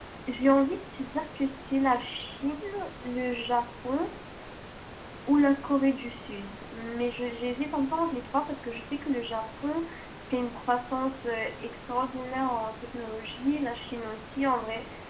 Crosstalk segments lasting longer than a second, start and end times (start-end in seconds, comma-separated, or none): none